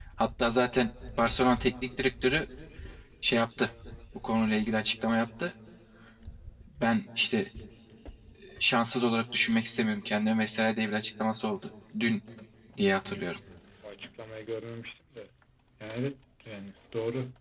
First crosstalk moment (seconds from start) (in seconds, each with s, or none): none